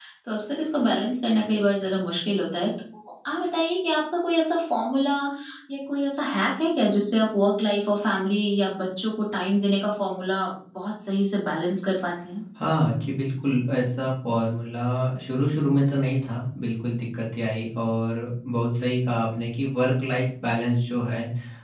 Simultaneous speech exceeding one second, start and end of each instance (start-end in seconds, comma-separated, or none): none